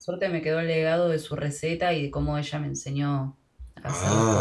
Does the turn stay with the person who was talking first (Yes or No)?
No